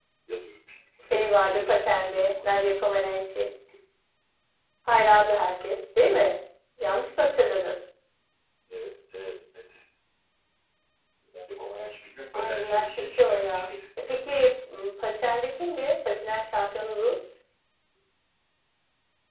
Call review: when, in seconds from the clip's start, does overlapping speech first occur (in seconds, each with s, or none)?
1.1 s